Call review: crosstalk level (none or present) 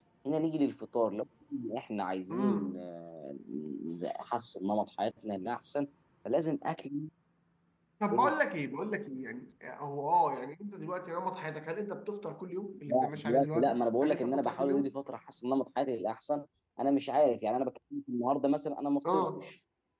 present